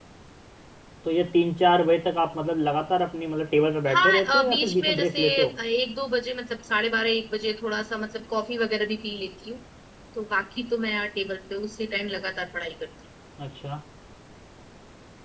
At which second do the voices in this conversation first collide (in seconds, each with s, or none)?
3.9 s